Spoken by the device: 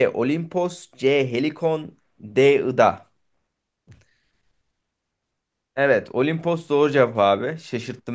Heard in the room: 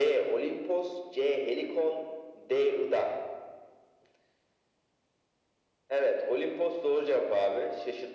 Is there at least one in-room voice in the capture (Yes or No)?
No